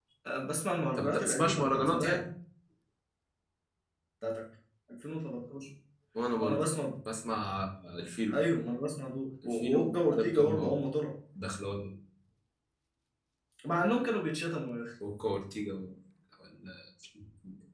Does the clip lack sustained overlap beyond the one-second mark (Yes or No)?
No